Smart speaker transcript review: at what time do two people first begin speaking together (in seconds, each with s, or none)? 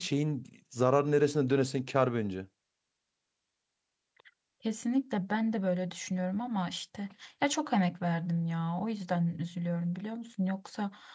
none